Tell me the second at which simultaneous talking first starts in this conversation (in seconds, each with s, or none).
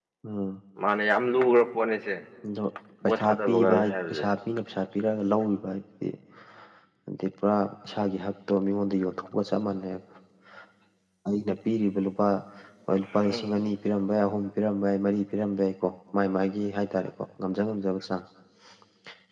3.0 s